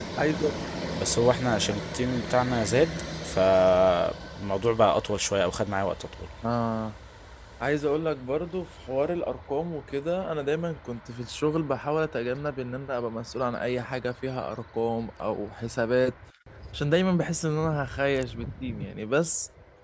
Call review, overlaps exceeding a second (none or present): none